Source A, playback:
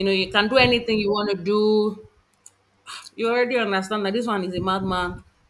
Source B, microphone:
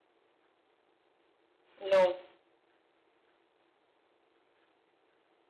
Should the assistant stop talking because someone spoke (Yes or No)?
Yes